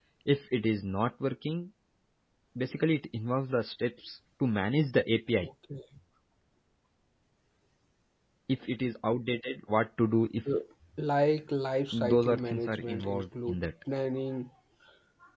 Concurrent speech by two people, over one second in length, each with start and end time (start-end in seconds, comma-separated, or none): 11.9-13.6